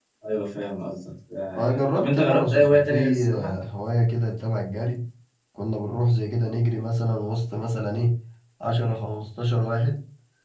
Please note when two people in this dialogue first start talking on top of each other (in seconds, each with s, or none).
1.5 s